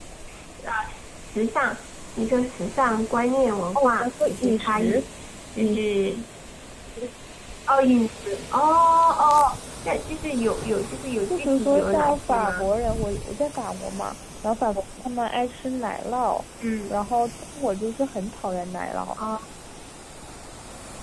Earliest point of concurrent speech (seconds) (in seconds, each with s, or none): 3.8 s